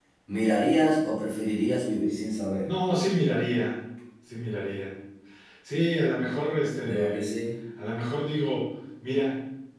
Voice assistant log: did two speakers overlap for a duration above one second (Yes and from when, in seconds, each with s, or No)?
No